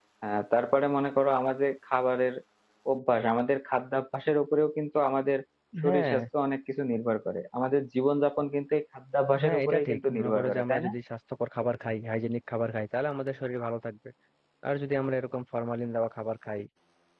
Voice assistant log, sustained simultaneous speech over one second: present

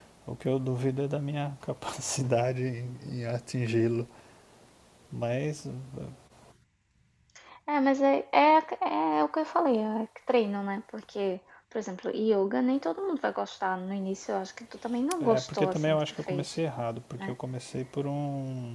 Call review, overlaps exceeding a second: present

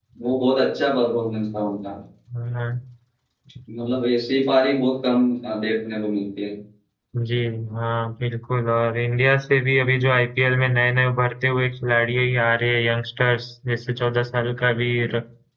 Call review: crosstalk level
none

